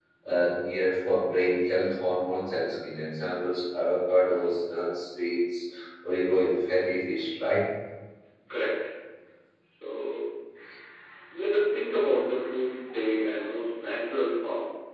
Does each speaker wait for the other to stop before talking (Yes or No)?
Yes